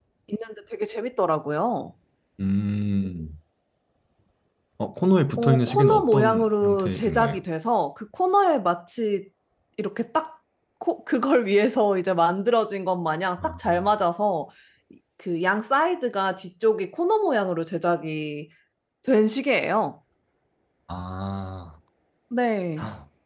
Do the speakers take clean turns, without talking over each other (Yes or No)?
No